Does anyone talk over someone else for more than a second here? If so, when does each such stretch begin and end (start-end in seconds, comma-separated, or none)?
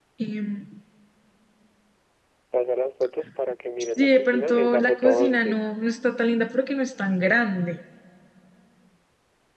3.8-5.6